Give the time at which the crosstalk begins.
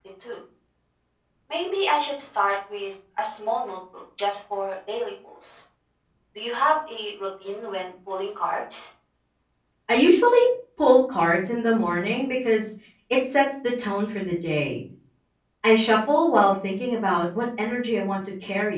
none

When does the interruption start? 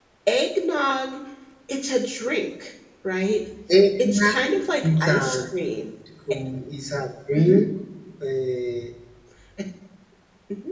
4.0 s

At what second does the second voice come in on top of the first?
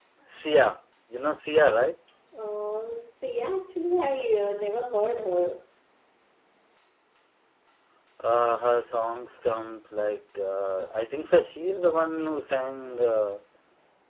none

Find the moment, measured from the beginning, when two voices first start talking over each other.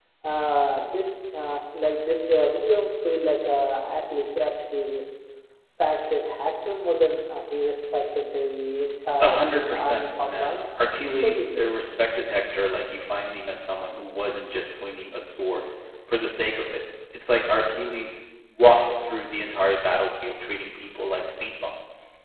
9.2 s

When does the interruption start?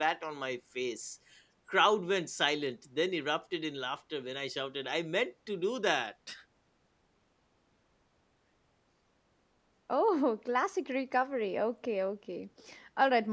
none

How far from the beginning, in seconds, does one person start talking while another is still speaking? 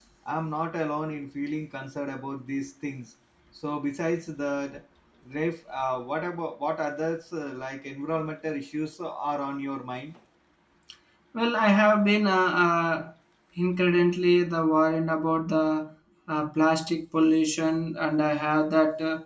none

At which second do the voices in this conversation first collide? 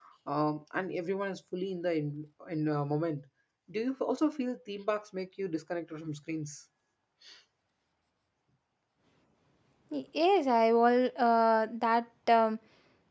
none

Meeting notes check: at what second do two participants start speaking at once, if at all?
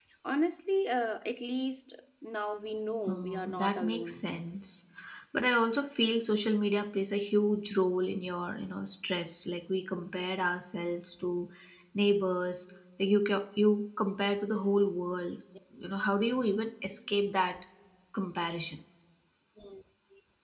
3.1 s

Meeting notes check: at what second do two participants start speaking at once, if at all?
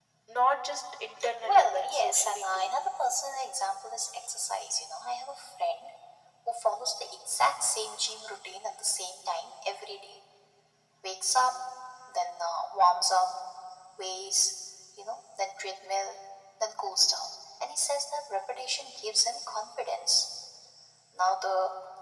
1.2 s

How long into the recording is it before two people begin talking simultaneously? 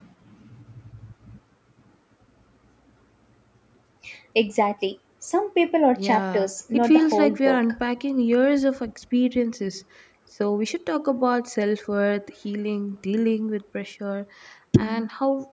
5.9 s

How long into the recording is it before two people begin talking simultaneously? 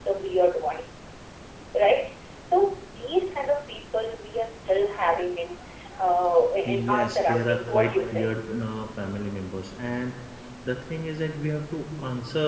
6.6 s

